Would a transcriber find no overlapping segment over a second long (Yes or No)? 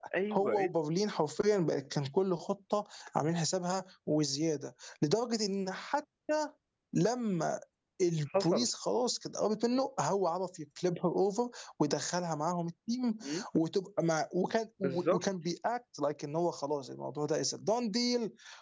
Yes